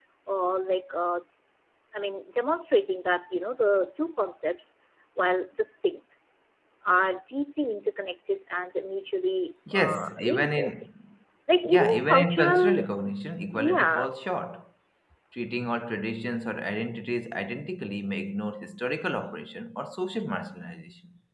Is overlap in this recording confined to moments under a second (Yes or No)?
No